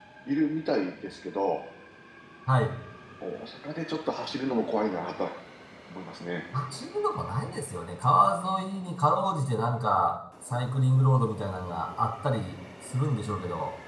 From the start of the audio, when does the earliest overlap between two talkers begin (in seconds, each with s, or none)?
none